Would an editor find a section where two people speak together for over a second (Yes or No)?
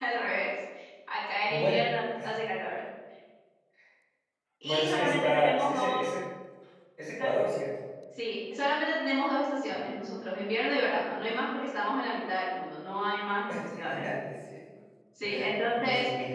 Yes